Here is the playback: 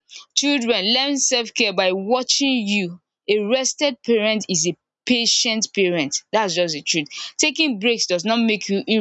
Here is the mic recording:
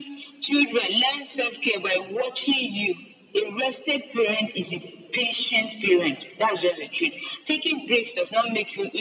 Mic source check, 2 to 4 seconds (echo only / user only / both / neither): echo only